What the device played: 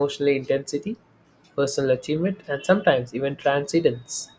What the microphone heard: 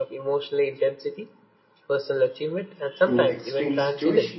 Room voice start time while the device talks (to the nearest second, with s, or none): 3 s